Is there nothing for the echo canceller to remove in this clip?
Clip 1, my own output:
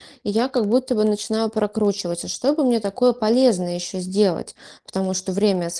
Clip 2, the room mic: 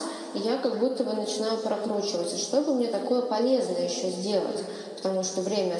No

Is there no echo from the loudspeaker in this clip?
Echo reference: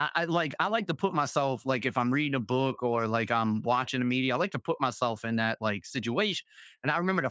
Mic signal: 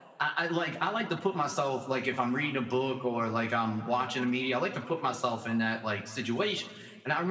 No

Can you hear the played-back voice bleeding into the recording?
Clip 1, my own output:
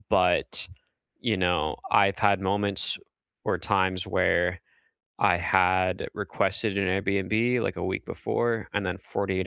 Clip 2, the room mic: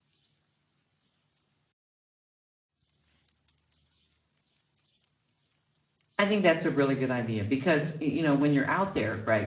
No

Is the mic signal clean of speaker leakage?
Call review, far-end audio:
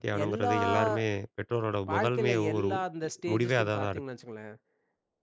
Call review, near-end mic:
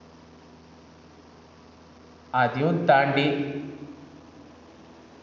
Yes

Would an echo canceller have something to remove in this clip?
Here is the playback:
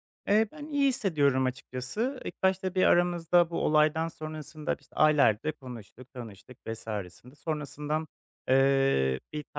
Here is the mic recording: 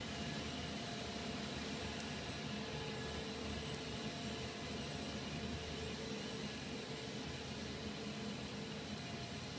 No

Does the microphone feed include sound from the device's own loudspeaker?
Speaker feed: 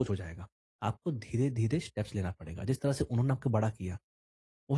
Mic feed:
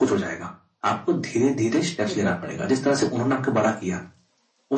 Yes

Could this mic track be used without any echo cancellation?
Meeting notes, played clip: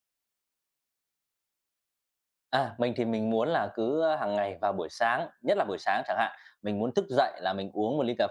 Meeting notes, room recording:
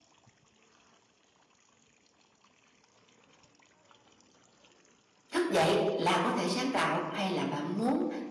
Yes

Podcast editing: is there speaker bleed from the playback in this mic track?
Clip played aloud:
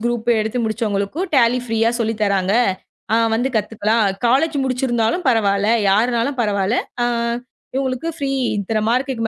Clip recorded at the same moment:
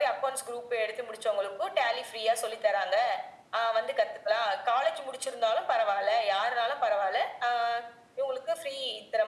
Yes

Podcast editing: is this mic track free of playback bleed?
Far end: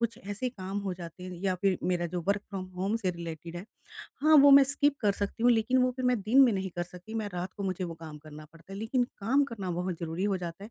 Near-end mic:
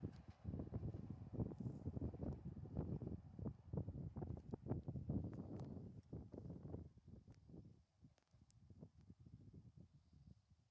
Yes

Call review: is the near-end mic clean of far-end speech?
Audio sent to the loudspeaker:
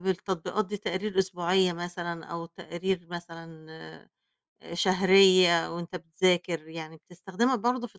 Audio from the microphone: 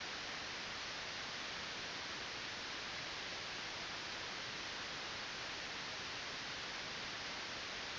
Yes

